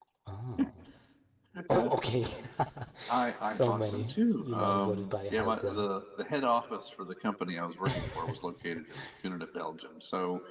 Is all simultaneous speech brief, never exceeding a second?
No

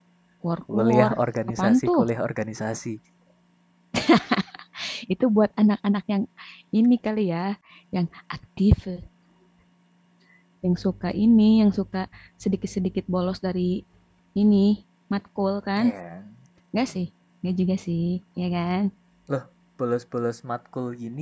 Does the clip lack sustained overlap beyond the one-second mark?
Yes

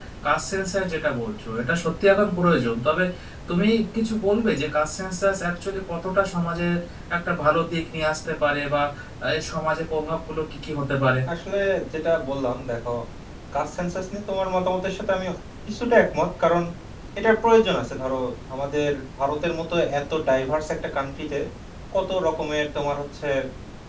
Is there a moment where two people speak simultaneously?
No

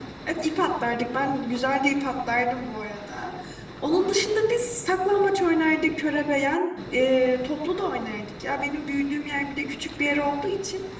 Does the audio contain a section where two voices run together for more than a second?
No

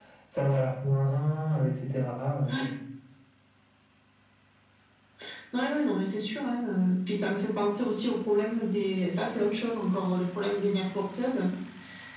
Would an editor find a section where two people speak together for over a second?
No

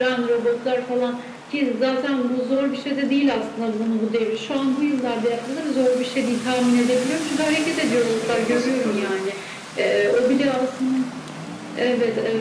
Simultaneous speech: Yes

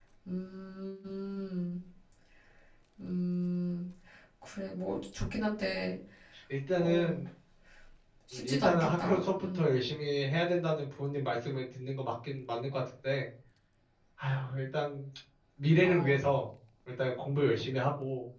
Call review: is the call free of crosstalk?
No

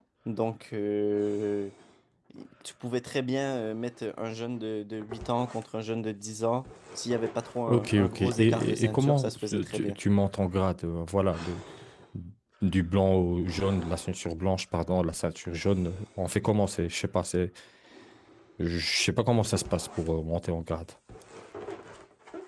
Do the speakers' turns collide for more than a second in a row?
Yes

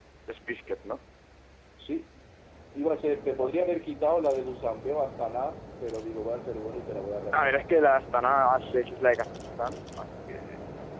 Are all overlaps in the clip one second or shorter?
Yes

